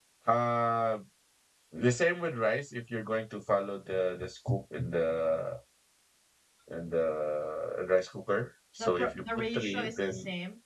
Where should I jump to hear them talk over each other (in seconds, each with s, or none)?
8.8 s